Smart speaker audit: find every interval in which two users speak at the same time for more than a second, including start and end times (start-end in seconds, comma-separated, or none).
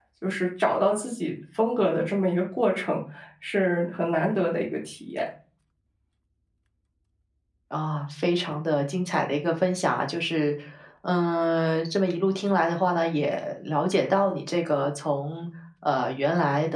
none